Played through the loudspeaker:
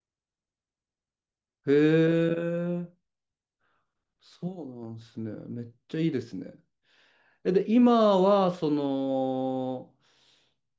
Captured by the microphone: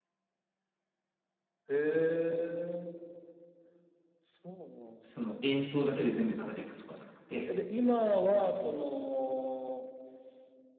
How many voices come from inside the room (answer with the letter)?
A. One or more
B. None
A